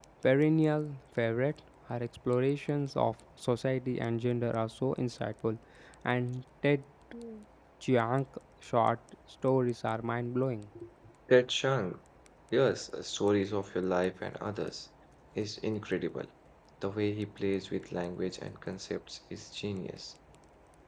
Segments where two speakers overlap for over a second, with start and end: none

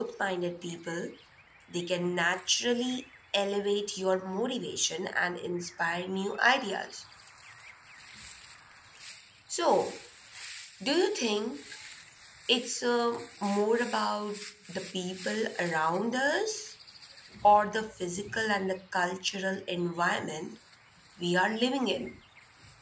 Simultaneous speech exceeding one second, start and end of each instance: none

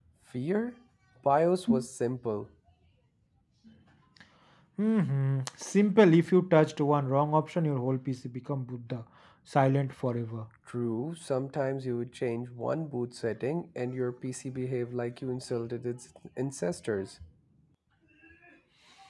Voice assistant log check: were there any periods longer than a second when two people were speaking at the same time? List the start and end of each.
none

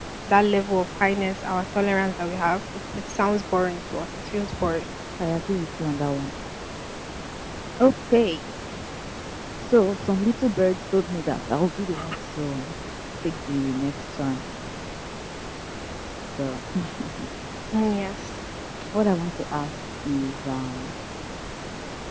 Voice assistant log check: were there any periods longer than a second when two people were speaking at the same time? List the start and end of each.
none

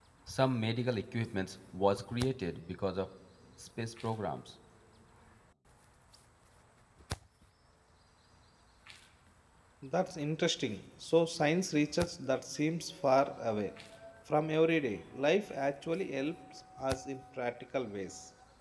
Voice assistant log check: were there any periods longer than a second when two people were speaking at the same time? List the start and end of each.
none

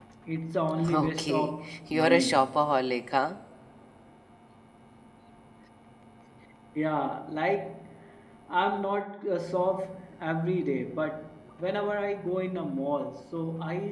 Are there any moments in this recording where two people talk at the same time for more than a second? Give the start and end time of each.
0.9-2.6

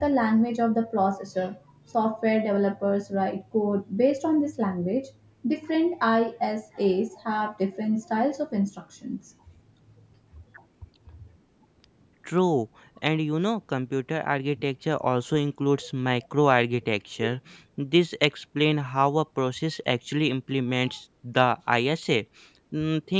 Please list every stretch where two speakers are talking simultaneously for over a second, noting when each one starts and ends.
none

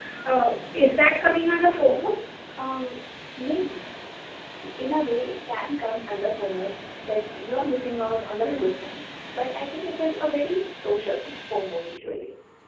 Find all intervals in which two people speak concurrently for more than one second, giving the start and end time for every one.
none

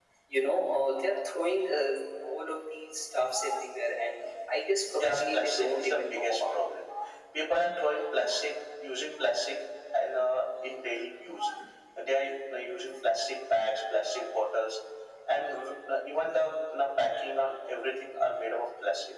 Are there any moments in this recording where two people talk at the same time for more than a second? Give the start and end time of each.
5.0-6.5

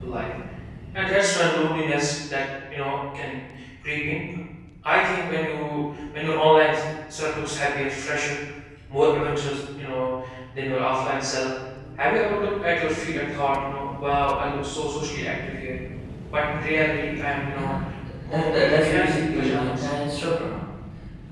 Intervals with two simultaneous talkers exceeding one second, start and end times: 18.3-19.8

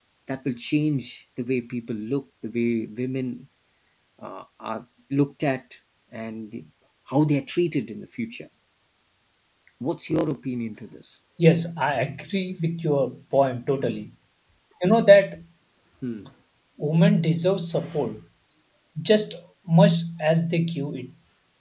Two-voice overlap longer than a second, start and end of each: none

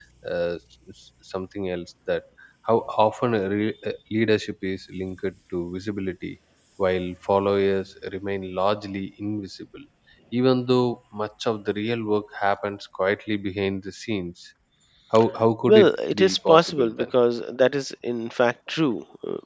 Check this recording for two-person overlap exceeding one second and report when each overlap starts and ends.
15.7-17.1

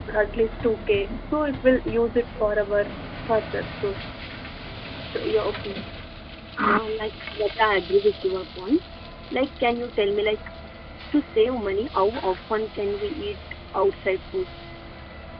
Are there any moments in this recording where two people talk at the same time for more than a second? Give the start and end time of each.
none

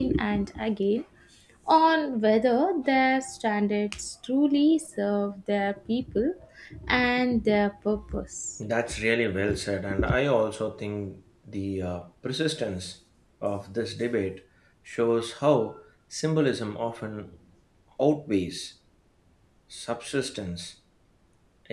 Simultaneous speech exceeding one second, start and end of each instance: none

